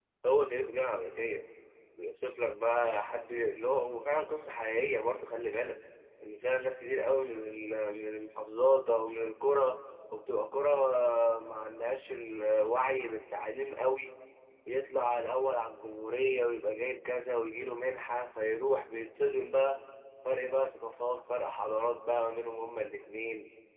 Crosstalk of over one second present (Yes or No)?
No